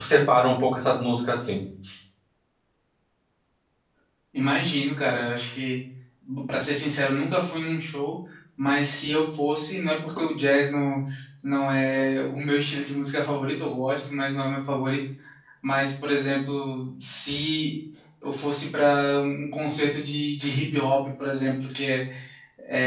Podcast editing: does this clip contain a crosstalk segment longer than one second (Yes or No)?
No